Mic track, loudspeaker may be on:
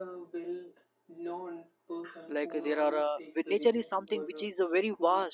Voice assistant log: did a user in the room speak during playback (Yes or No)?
Yes